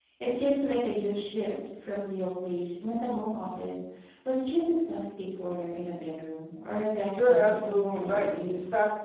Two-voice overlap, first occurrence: 7.1 s

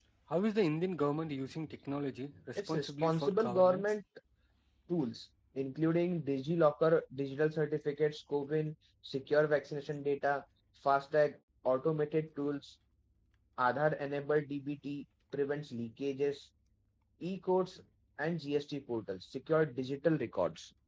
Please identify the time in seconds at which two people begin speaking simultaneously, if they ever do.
2.6 s

